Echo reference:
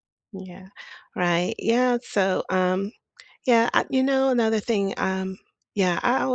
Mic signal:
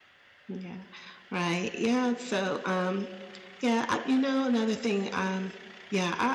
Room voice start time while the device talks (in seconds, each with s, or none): none